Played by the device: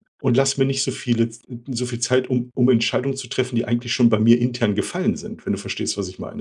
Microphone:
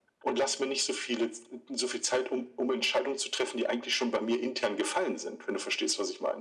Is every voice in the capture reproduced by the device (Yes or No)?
Yes